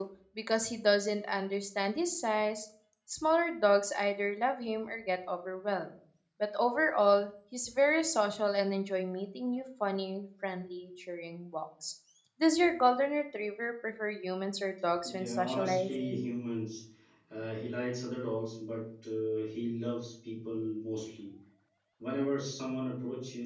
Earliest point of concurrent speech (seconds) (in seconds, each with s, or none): 15.0 s